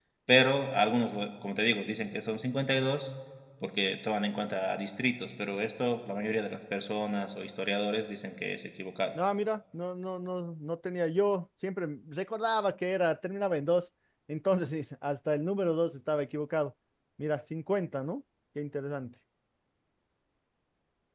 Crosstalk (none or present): none